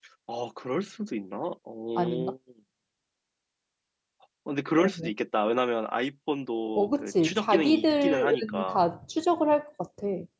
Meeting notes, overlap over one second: present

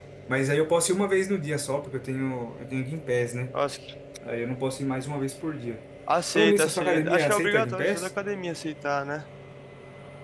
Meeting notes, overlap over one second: present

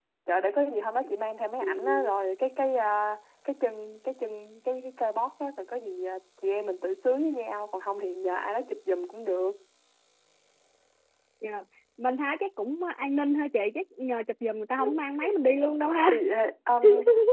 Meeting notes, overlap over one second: none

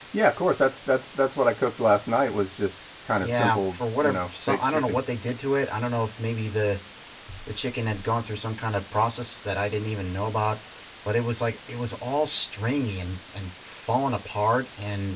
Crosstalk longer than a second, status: present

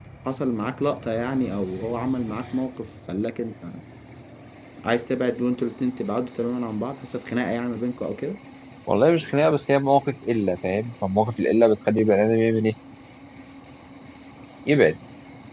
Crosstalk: none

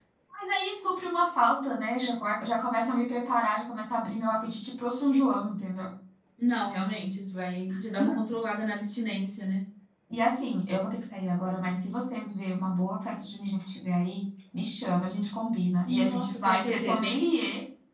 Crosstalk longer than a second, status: present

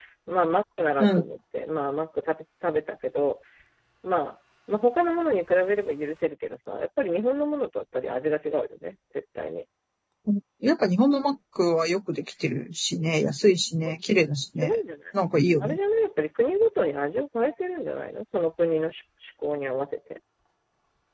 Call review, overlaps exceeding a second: none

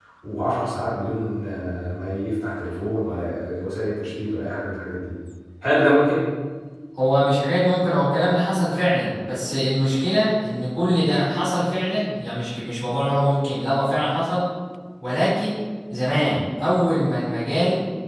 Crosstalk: none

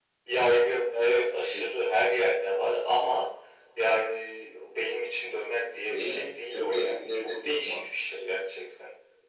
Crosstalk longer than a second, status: present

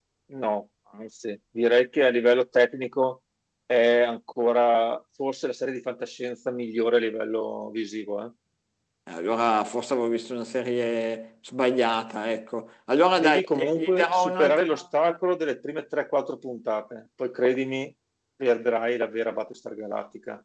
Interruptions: present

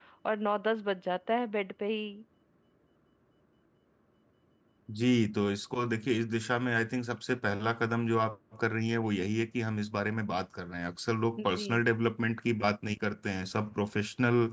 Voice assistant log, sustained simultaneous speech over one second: none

